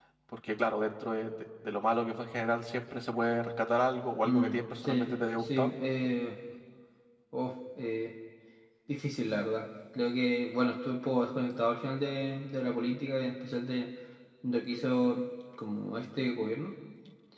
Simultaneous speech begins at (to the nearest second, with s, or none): 4 s